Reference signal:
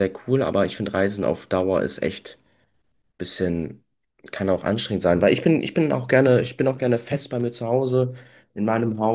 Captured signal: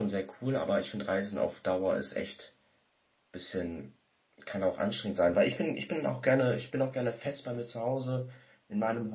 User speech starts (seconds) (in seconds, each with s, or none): none